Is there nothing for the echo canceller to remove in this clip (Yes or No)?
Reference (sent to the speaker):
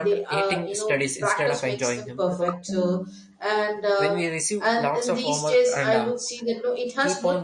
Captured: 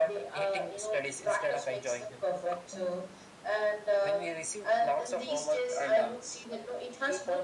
No